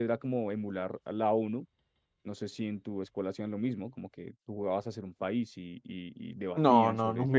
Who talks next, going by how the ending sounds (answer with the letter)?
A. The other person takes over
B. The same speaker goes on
A